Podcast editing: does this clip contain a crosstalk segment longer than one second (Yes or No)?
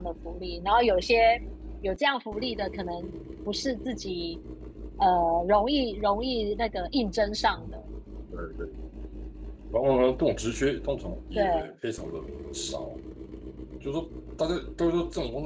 No